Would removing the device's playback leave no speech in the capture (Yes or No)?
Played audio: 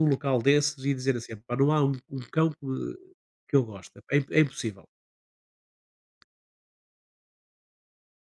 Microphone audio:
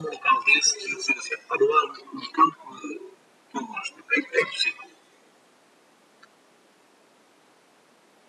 Yes